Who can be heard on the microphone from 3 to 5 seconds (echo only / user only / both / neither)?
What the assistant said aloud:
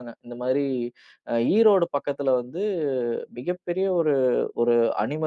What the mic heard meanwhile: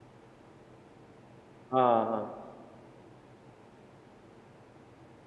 neither